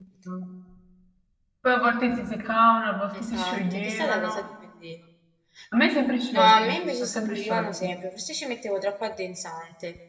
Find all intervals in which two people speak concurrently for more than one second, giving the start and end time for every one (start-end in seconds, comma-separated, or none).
3.2-4.4, 6.3-7.9